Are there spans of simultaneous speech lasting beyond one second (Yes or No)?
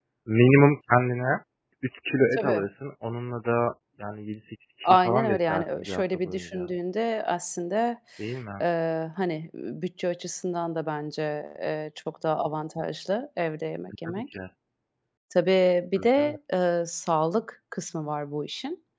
Yes